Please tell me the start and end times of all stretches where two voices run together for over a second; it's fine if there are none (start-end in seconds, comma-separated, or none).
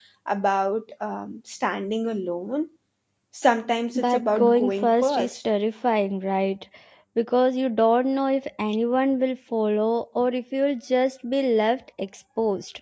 4.0-5.4